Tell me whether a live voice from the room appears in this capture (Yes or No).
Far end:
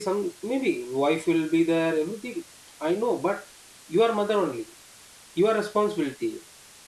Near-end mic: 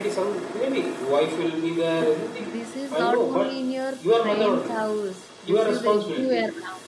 Yes